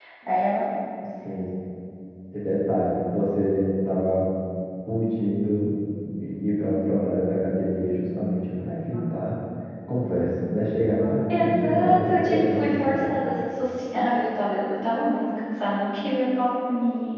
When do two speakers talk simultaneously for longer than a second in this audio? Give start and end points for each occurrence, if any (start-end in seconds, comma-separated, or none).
11.3-13.0